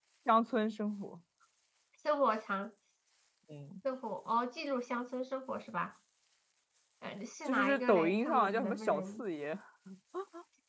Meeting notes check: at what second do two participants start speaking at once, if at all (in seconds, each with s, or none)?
7.5 s